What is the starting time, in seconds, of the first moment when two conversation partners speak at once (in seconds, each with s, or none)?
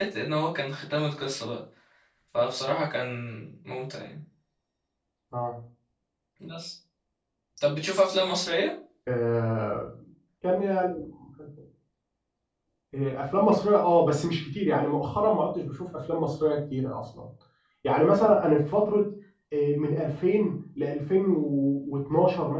none